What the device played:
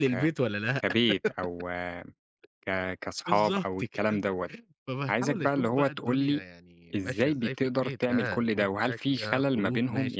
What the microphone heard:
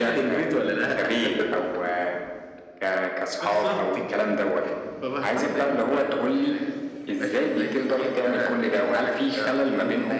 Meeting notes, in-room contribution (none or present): none